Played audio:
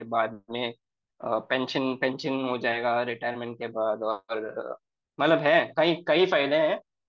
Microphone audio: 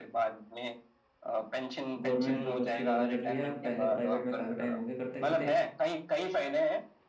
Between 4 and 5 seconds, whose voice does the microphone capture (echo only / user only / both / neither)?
both